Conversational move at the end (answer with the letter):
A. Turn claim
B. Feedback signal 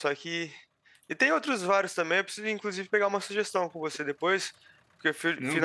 B